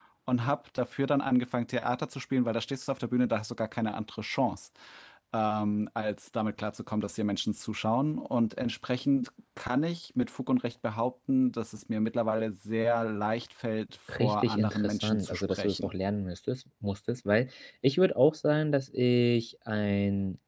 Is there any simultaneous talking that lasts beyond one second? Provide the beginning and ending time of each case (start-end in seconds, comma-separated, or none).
14.1-15.9